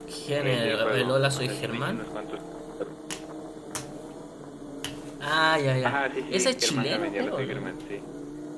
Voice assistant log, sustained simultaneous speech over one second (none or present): present